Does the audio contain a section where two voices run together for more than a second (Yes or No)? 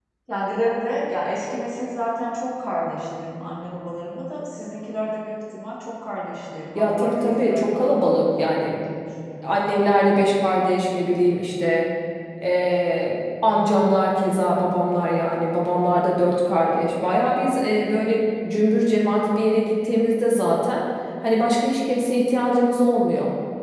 Yes